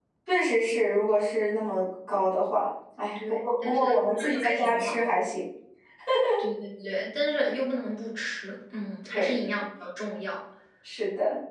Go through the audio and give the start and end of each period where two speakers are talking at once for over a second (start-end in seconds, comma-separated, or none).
3.2-5.0